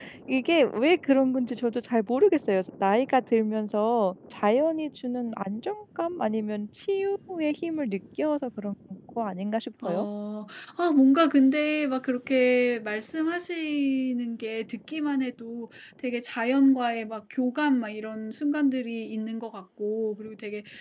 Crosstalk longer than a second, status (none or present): none